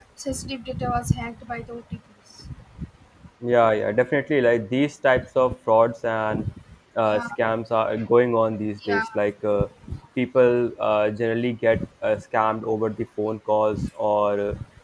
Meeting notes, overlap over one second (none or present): none